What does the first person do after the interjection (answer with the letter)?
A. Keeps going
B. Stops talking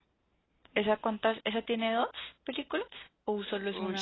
B